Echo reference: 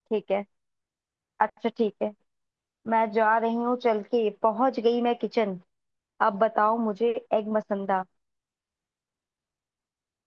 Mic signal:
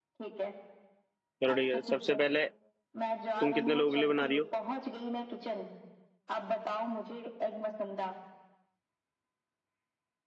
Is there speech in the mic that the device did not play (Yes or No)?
Yes